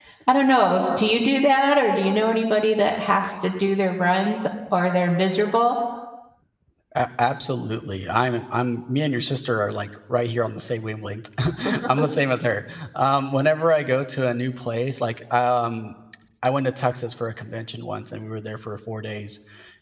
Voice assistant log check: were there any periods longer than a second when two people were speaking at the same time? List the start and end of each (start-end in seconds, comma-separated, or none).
none